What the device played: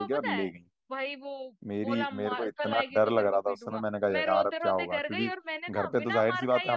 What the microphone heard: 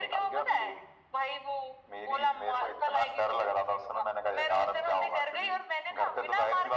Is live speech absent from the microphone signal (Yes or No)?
Yes